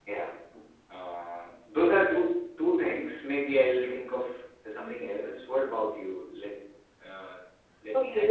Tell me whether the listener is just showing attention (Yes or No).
No